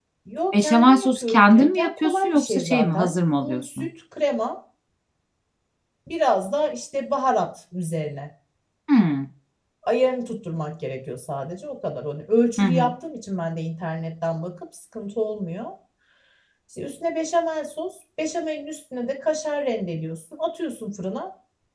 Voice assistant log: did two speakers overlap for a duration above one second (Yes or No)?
Yes